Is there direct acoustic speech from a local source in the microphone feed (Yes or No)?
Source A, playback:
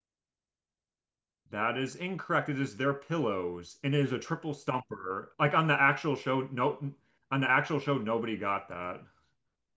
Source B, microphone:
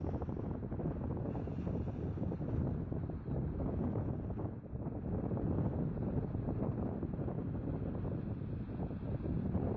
No